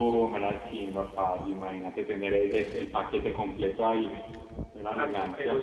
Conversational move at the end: taking over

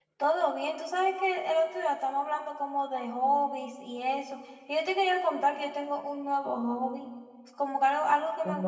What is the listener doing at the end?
listening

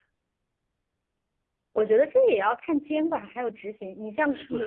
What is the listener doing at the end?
taking over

